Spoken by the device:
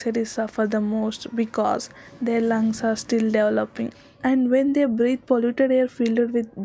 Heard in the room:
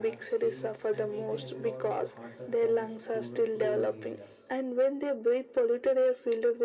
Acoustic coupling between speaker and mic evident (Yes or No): Yes